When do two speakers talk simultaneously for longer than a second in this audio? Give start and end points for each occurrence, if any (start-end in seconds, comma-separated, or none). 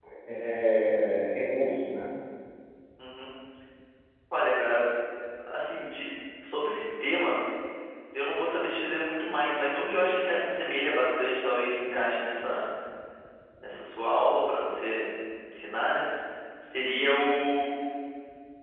none